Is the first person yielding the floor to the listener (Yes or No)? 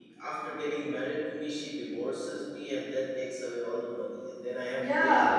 Yes